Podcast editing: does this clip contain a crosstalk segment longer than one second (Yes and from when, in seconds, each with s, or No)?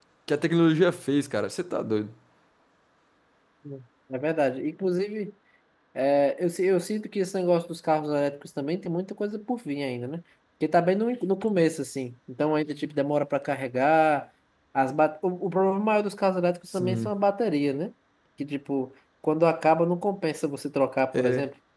No